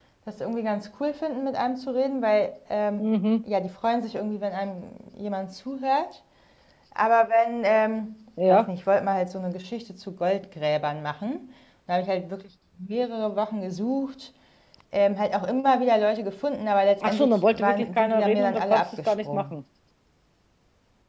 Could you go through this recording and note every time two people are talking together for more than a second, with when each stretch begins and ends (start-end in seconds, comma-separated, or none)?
17.0-19.5